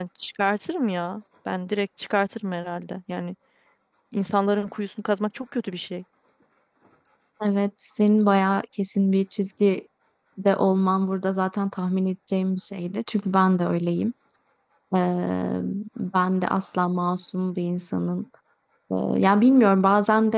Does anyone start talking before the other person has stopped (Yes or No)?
No